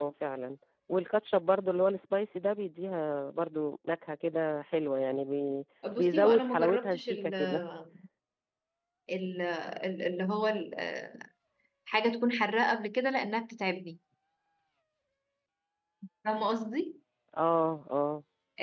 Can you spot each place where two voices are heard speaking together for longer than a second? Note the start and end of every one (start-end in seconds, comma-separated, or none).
6.0-7.3